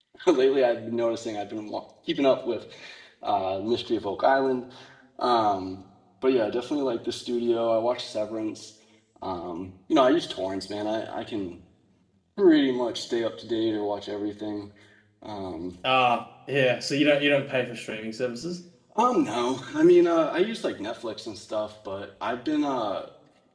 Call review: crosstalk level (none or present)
none